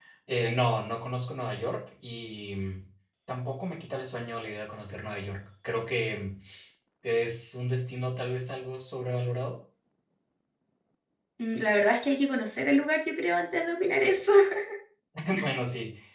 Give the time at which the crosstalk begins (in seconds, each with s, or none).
none